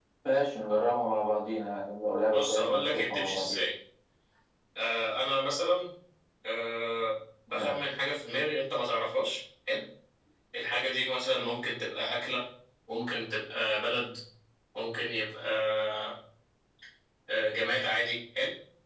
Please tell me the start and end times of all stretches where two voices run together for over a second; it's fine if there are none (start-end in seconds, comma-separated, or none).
2.3-3.6